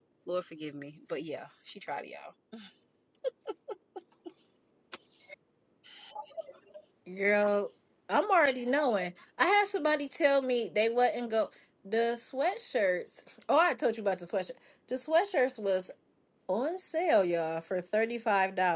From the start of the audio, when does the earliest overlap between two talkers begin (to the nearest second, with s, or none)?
none